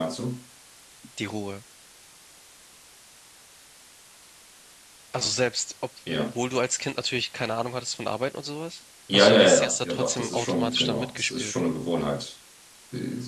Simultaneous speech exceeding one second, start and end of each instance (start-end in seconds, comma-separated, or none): 9.1-11.5